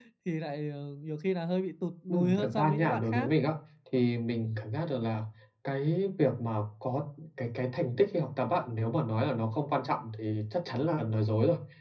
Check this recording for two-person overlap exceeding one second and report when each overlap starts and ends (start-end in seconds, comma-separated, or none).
2.1-3.3